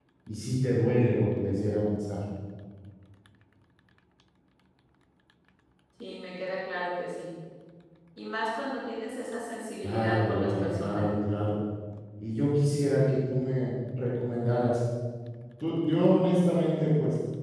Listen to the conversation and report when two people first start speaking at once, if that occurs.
10 s

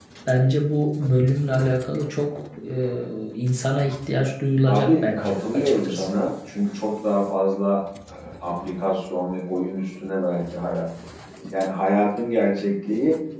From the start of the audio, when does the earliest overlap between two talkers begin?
5 s

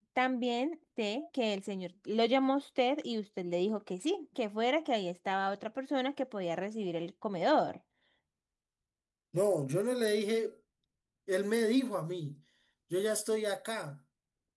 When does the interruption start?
none

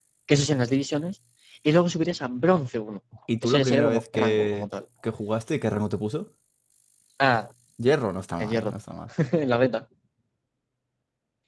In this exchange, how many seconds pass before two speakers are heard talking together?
3 s

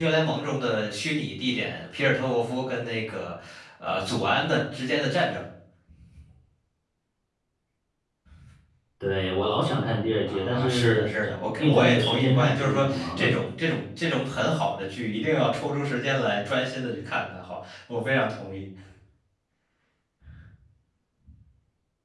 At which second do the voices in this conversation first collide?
10 s

